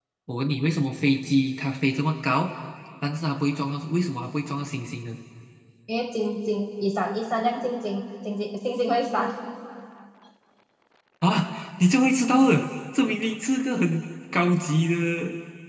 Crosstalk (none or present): none